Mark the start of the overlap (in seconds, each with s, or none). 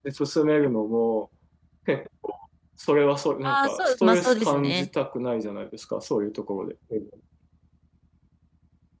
3.4 s